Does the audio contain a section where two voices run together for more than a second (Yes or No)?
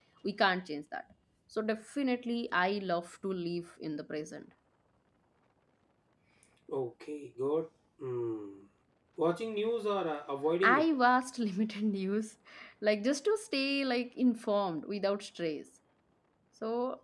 No